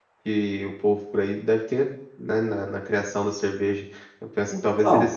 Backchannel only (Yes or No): Yes